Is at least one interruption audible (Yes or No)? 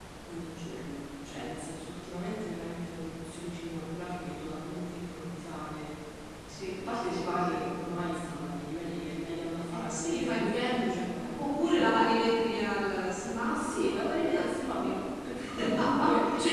Yes